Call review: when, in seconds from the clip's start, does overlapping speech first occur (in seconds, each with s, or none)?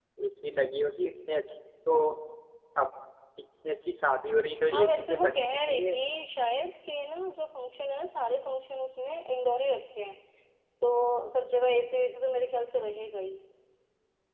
4.7 s